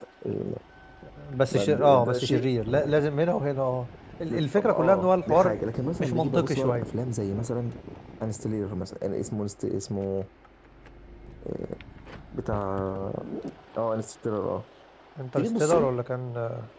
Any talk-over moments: Yes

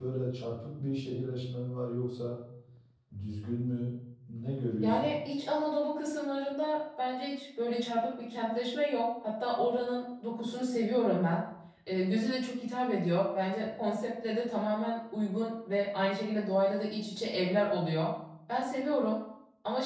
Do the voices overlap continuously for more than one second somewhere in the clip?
No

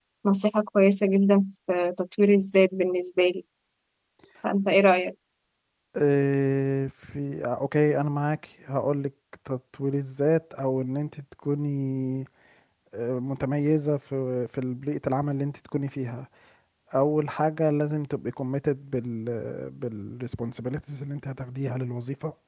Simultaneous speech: No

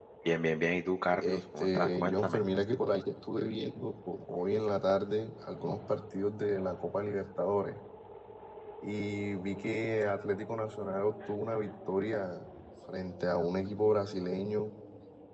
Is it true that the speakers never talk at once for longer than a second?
No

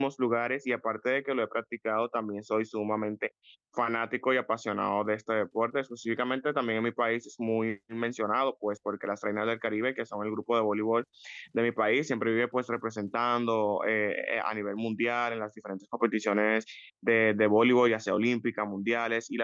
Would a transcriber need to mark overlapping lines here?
No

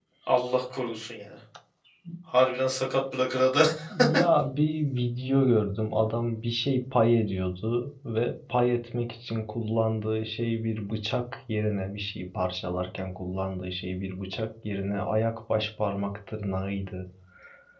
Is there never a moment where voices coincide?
Yes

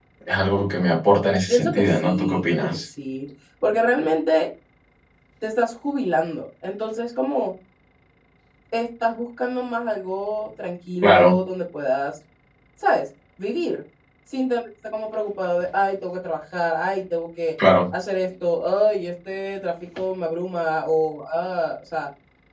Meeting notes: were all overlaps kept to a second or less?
No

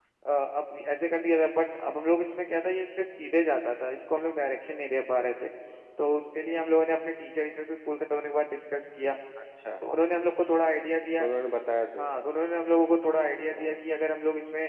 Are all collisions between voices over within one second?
Yes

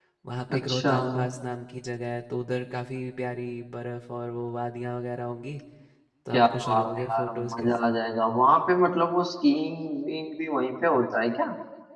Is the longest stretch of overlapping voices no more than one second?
No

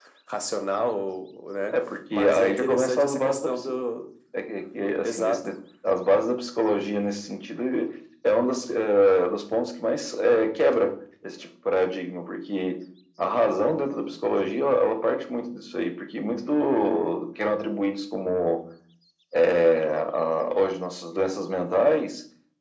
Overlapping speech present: Yes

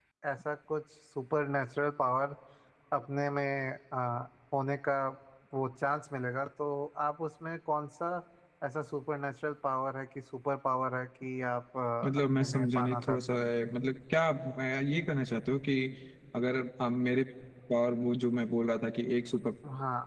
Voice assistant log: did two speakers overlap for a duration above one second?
Yes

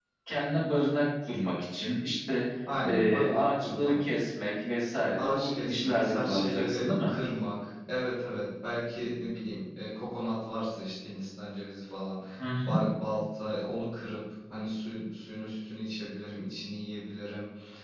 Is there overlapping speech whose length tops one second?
Yes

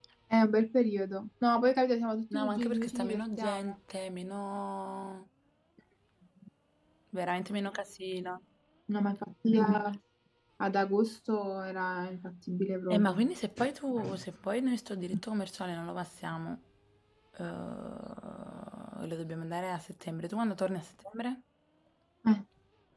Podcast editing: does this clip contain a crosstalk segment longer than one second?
Yes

